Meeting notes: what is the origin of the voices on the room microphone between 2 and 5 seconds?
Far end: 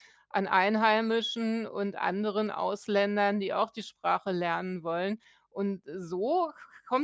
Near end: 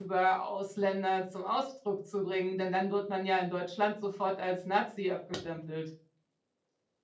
user only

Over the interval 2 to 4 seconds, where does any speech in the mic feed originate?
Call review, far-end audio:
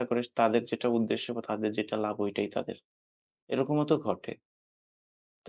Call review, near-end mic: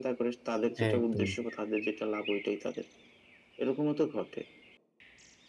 echo only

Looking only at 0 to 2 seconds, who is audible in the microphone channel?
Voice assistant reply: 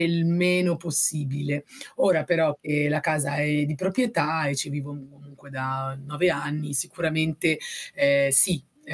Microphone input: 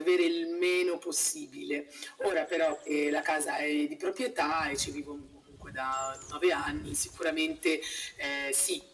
echo only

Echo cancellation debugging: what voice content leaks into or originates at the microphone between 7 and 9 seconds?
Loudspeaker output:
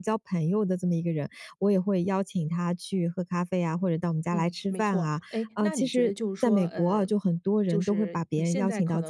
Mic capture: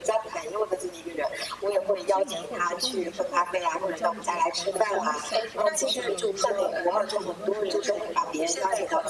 both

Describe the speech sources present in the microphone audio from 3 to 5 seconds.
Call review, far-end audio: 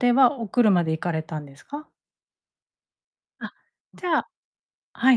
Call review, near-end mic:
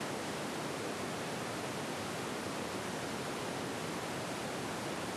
neither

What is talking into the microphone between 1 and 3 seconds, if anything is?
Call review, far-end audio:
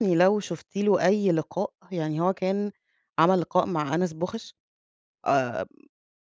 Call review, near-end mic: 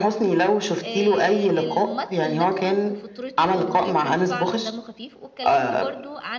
both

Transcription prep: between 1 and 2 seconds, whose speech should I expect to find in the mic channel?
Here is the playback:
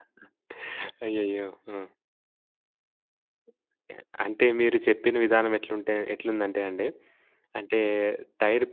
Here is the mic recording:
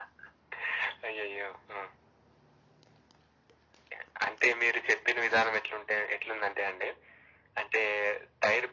echo only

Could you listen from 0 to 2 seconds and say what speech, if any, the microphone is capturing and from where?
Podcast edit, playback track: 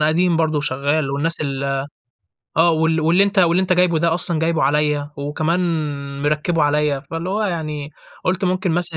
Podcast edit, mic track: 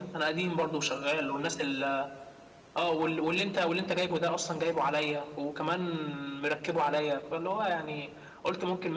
echo only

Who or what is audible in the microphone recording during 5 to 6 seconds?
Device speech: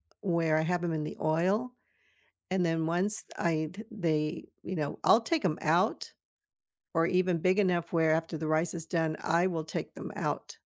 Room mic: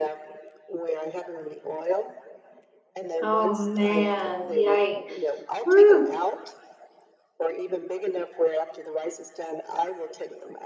both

